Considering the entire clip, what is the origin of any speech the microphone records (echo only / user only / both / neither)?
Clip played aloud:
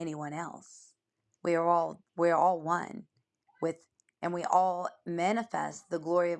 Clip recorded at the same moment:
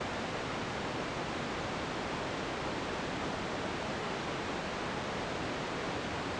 neither